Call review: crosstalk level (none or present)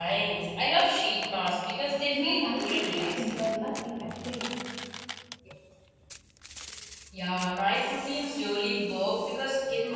present